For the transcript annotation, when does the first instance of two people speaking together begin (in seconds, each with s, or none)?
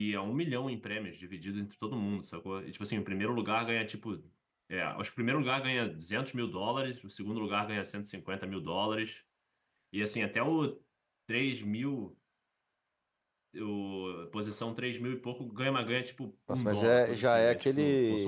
16.5 s